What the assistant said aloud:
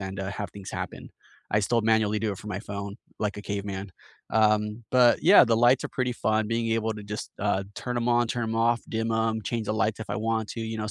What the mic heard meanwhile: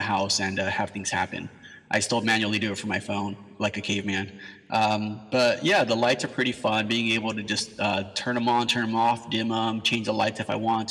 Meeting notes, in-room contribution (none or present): none